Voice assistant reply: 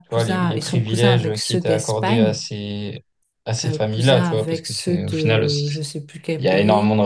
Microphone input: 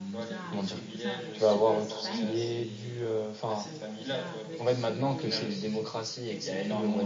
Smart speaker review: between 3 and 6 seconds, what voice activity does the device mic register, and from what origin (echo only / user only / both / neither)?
both